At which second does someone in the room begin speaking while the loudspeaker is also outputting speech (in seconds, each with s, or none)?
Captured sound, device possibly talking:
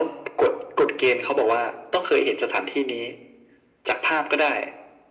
none